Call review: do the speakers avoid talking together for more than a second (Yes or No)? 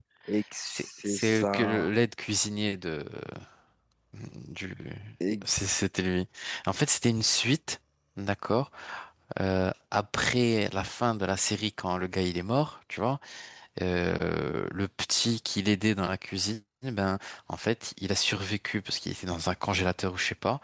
No